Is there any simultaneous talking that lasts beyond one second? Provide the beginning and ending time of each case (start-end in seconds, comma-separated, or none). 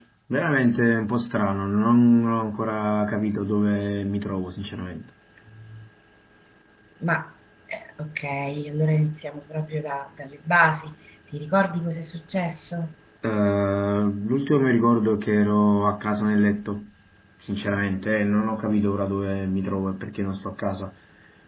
none